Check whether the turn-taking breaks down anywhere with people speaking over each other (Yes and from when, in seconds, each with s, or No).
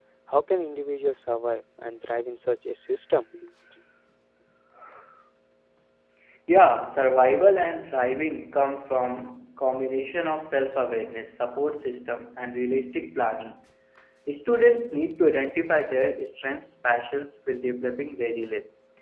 No